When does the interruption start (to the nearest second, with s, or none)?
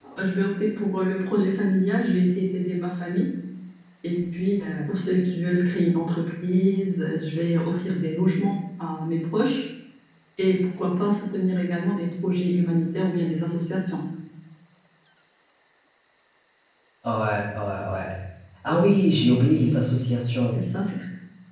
none